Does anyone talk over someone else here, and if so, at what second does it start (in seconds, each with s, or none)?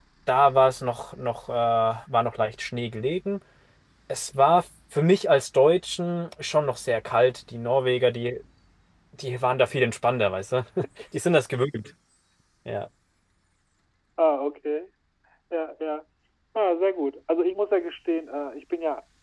none